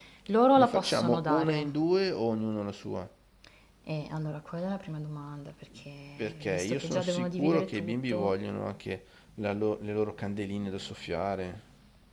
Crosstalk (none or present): present